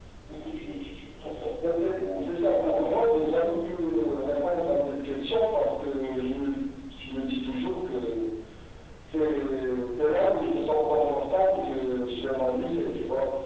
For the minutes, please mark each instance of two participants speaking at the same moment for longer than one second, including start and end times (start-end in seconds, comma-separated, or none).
2.0-3.4